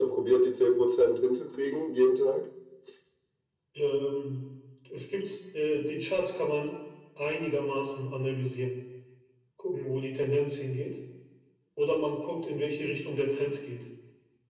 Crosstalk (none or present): none